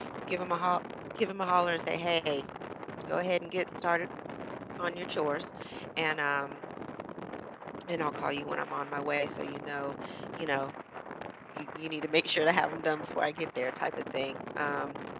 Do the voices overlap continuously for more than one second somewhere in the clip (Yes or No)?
No